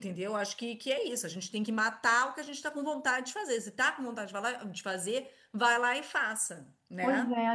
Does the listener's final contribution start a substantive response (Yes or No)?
Yes